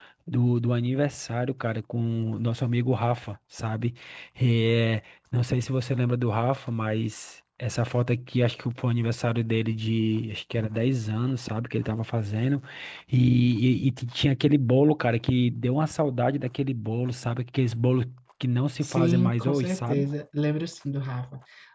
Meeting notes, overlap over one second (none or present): present